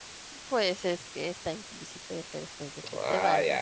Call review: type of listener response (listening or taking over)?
taking over